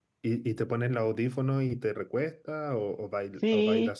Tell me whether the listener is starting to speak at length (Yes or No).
Yes